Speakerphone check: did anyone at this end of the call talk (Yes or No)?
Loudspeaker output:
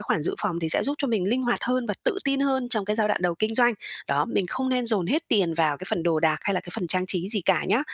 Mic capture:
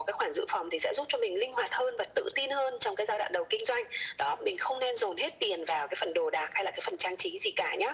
No